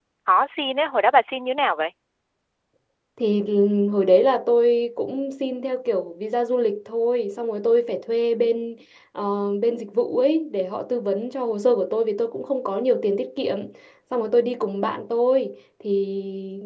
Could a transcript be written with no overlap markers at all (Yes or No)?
Yes